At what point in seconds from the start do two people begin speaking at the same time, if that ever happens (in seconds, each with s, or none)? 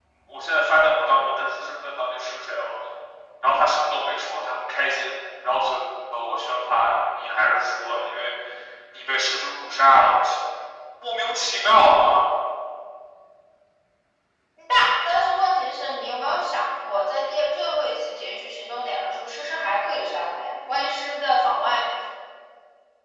none